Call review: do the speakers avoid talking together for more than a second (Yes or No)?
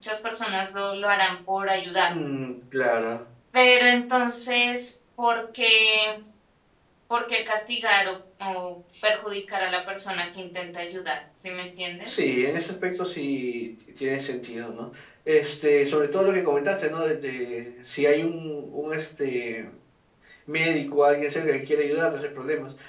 Yes